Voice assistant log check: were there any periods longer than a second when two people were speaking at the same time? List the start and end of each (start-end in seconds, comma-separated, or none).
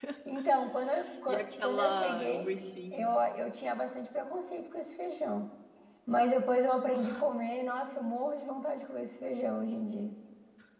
1.3-2.5